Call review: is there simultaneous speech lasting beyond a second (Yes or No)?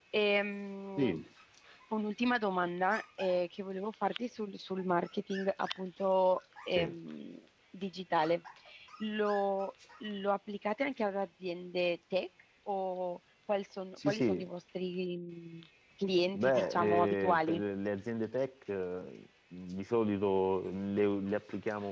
Yes